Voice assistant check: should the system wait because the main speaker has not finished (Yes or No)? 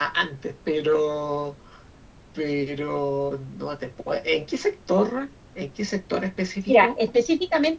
No